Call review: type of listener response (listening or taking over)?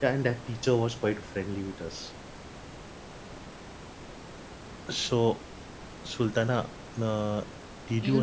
taking over